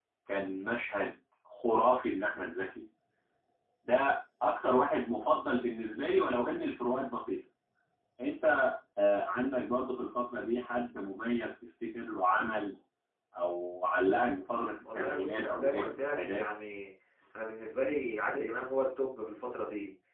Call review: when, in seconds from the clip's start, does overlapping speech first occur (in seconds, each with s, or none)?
14.8 s